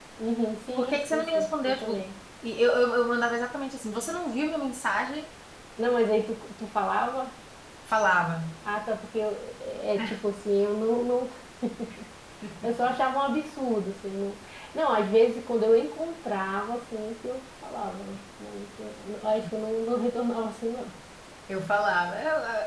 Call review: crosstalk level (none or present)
present